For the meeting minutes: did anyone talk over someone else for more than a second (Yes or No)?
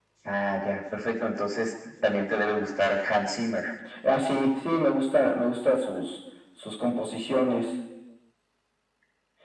No